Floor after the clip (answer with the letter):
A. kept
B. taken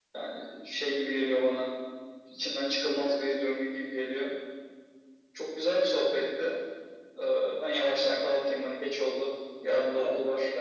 B